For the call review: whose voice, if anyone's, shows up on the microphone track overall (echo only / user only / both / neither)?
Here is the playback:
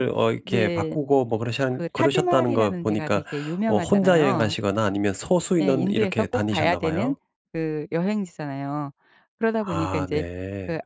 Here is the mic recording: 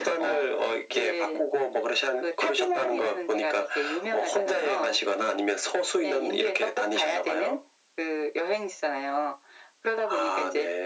echo only